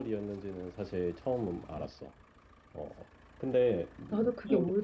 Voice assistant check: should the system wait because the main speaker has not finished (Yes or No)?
No